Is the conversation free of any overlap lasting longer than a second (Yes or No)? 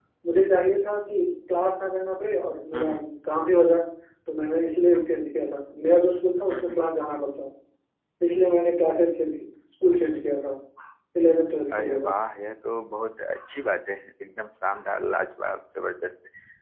Yes